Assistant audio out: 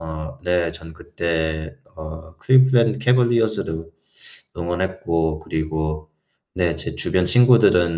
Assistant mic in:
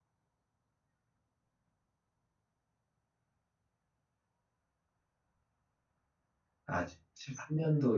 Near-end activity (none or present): present